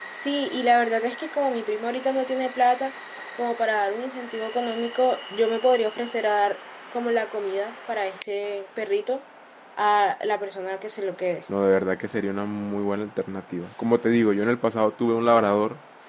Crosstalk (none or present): none